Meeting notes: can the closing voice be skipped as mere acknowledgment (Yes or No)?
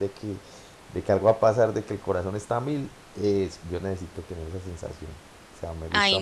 No